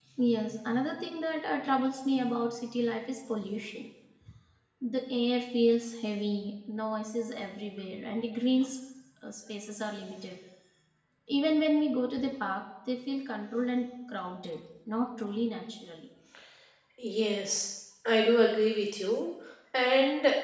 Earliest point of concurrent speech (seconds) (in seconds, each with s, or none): none